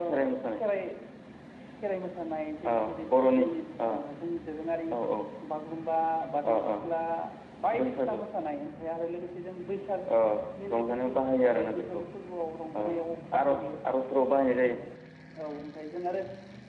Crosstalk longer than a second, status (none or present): present